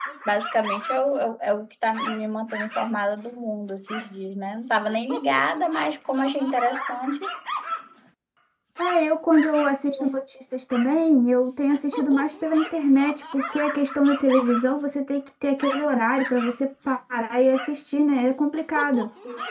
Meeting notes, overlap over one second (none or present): none